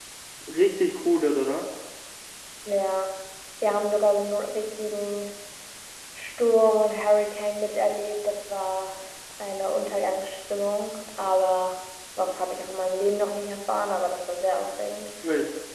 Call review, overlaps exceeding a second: none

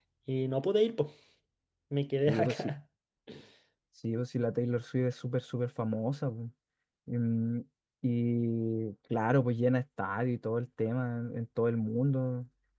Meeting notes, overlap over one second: none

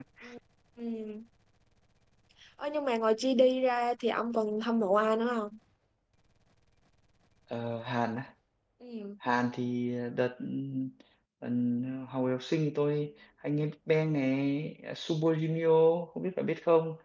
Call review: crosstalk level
none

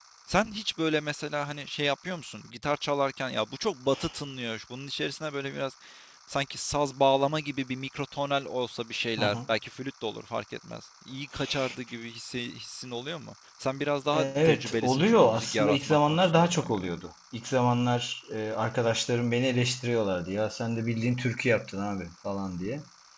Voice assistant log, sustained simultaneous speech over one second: present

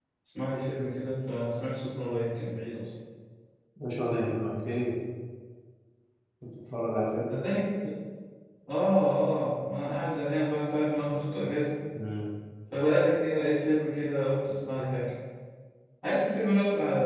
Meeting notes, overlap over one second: none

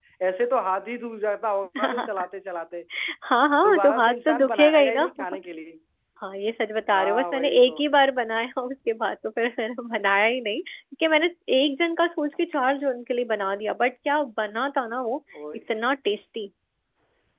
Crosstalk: present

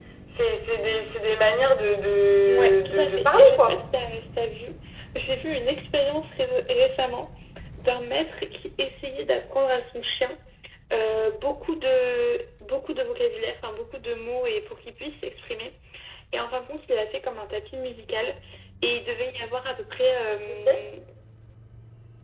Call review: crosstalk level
present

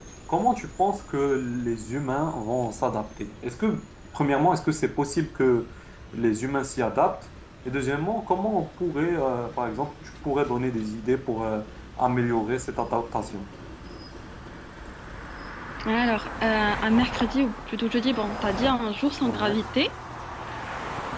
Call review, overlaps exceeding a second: none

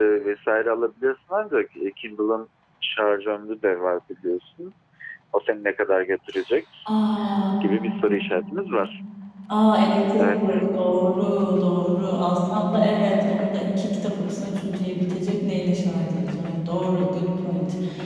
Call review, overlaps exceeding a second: none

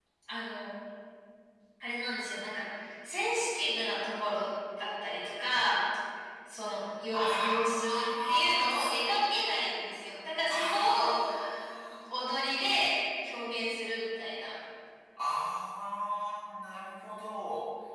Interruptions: present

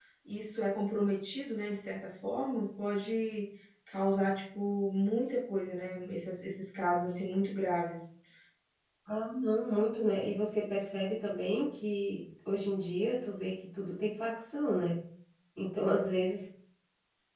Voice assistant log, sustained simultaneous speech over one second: none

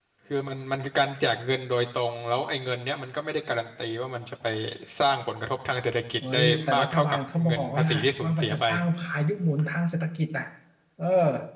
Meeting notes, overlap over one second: present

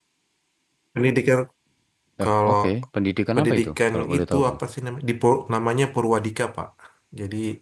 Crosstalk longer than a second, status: present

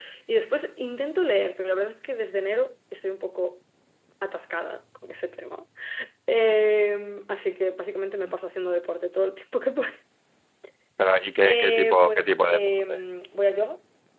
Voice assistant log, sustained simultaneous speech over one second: present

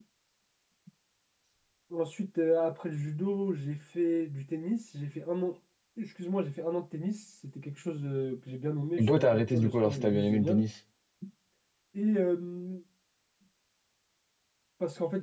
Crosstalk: present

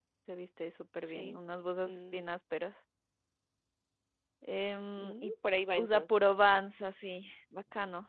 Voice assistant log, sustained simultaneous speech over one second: none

